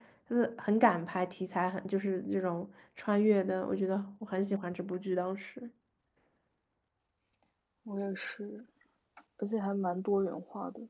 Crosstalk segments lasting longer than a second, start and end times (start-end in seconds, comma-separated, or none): none